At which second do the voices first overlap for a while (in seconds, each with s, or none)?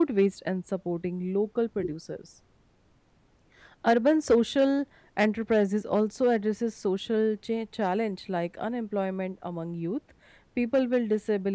none